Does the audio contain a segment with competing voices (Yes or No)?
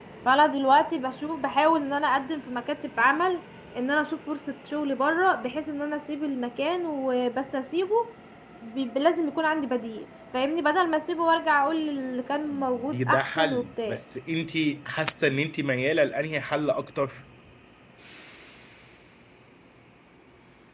Yes